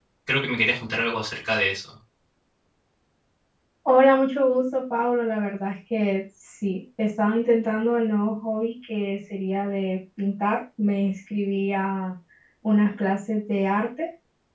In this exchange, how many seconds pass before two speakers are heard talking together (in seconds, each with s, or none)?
none